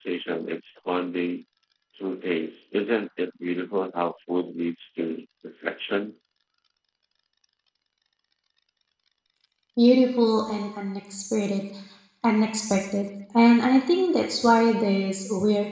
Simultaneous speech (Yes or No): No